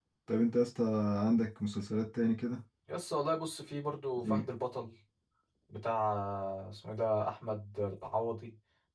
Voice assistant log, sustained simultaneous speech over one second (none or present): none